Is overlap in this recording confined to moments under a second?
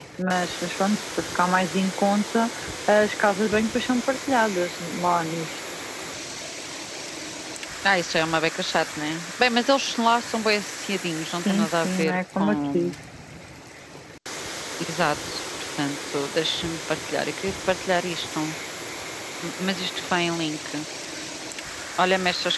No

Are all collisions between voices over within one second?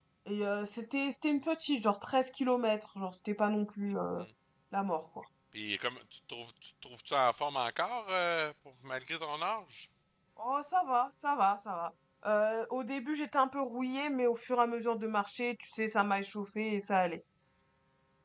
Yes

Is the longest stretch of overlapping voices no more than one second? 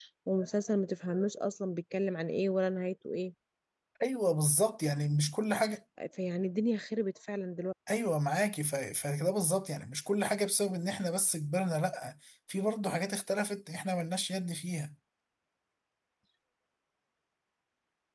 Yes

